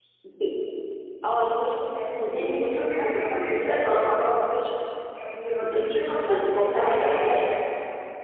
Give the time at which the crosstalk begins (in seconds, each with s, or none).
2.2 s